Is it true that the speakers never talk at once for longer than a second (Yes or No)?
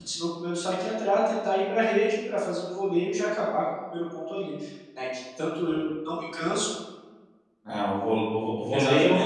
Yes